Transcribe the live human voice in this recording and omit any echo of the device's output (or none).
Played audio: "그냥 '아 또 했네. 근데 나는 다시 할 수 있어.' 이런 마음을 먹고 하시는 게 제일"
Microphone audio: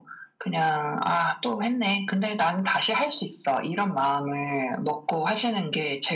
none